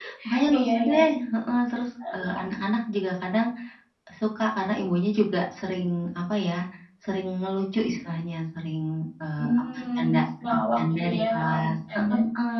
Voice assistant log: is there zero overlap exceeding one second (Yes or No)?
No